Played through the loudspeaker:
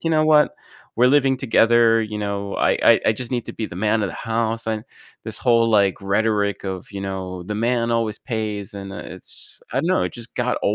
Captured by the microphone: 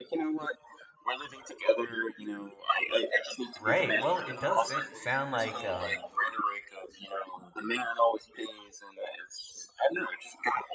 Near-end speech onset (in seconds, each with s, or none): 3.6 s